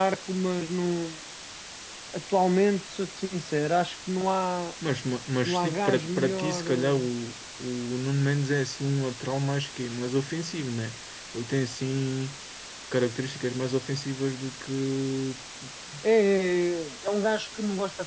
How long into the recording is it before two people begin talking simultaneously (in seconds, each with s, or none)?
5.5 s